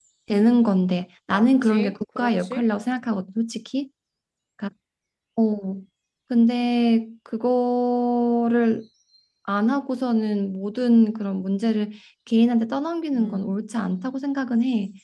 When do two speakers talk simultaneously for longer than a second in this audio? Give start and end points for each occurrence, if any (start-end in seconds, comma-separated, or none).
1.3-2.6